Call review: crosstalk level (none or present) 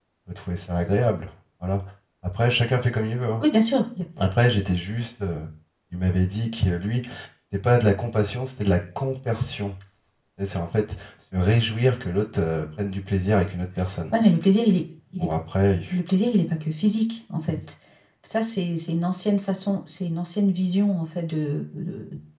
none